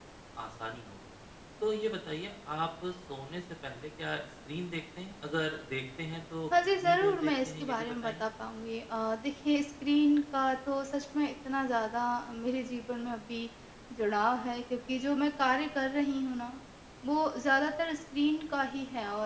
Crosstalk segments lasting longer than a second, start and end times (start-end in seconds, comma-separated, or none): 6.8-8.3